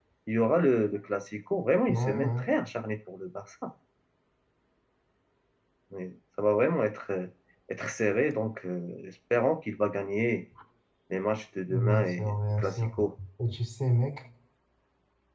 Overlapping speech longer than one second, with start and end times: 11.7-12.9

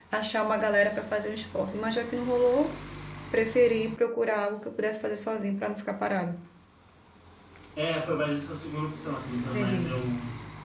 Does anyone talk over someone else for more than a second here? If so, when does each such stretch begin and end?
none

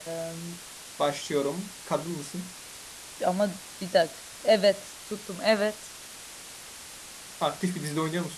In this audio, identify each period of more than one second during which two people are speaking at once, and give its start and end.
none

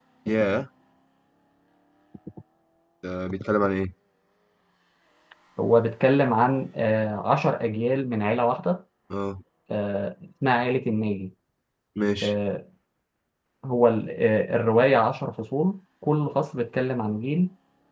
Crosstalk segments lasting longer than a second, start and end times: none

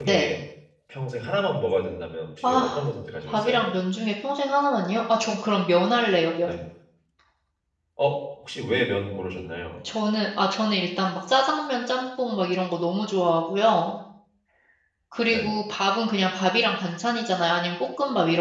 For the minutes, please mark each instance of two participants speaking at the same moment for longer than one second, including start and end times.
none

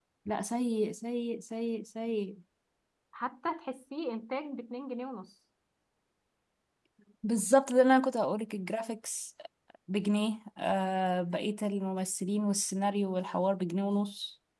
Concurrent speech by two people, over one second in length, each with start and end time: none

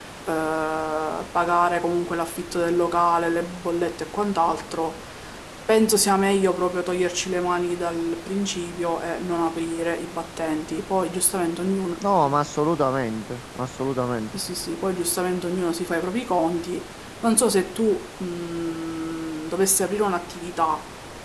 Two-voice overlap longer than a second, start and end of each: none

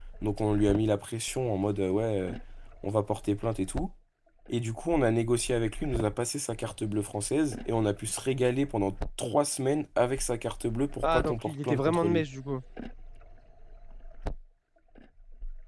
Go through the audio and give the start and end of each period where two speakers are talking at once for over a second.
11.0-12.2

